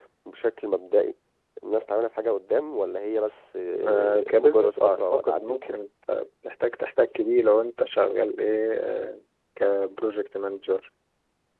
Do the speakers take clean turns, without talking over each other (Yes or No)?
No